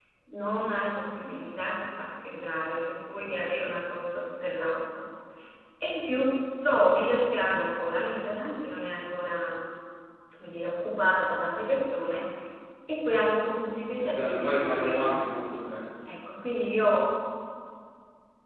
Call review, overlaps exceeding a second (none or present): present